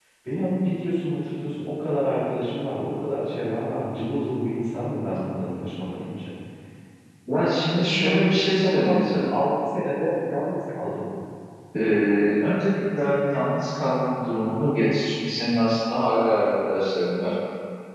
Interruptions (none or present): present